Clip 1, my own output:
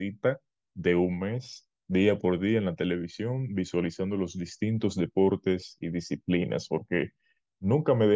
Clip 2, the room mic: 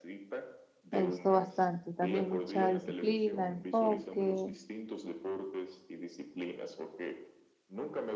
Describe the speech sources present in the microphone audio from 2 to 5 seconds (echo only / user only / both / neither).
both